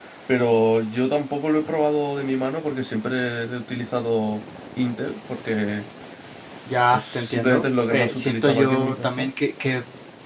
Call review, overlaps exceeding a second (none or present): present